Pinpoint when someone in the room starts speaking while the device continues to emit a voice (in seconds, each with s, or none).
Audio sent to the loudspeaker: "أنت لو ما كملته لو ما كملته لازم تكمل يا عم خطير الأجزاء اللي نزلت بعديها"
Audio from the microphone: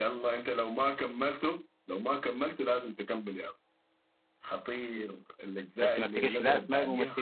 5.8 s